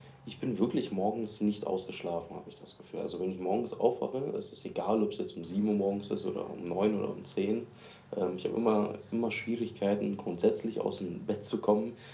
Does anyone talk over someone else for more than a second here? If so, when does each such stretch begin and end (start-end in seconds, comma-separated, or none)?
none